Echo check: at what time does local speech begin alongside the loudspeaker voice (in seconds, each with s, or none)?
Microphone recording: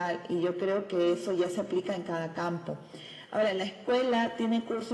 none